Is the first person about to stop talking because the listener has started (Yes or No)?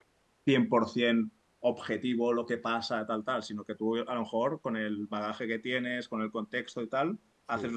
No